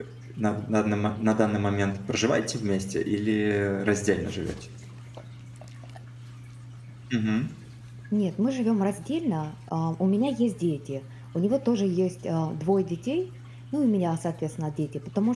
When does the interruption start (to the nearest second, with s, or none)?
none